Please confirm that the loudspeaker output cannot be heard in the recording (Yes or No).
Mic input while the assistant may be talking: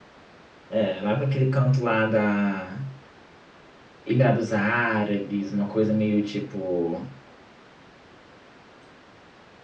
Yes